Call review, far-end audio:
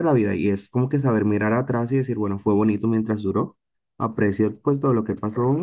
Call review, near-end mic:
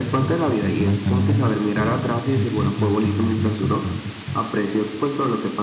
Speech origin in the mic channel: both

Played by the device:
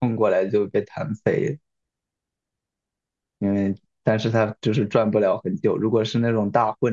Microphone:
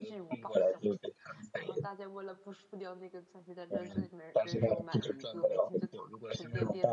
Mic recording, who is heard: both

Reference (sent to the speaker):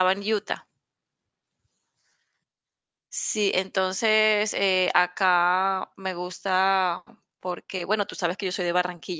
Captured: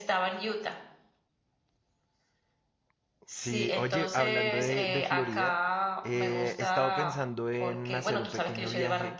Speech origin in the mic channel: both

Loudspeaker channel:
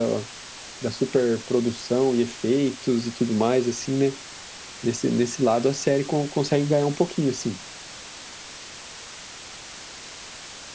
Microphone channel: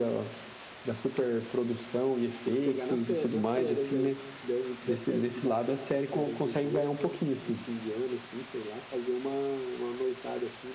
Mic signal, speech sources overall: both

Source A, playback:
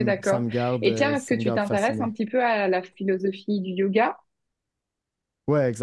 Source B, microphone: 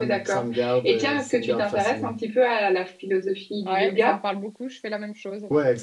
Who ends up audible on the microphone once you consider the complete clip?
both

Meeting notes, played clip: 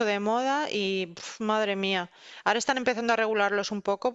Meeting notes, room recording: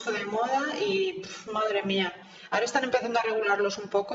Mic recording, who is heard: echo only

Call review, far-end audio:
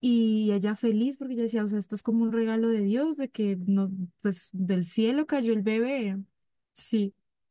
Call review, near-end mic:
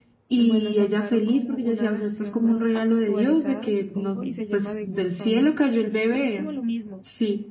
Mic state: both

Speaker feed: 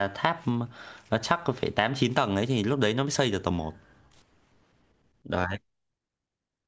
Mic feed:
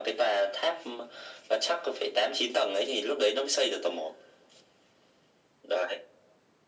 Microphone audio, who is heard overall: echo only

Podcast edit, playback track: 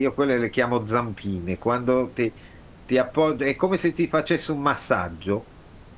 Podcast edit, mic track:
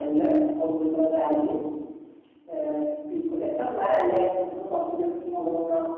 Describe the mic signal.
user only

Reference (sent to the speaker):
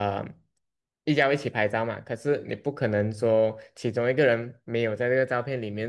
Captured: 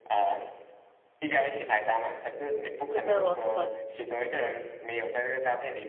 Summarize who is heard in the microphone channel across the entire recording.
both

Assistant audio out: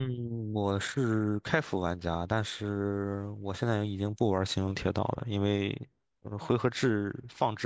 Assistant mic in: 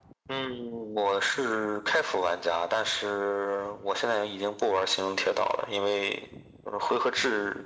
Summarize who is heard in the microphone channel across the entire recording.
echo only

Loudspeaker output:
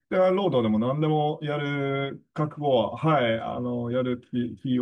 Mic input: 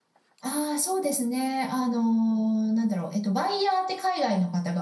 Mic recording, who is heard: user only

